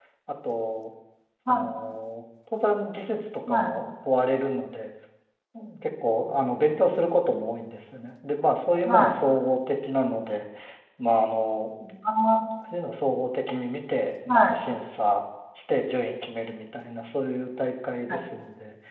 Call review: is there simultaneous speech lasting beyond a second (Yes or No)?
No